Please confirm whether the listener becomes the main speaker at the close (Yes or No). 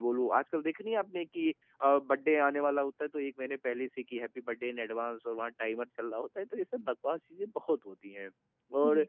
No